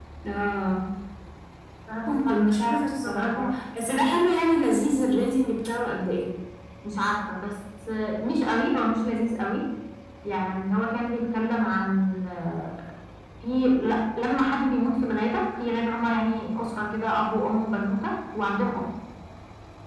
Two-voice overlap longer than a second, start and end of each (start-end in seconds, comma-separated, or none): 2.1-3.5